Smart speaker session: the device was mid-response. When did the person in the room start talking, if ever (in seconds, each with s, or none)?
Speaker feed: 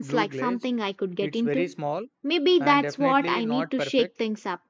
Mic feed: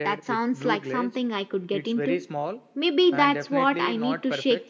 none